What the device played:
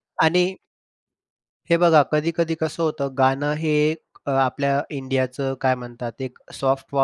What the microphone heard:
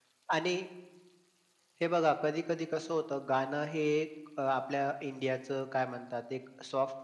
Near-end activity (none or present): none